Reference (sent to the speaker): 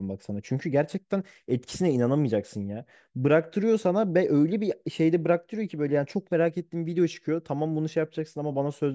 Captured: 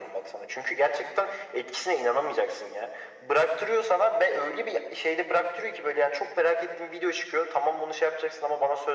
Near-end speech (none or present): none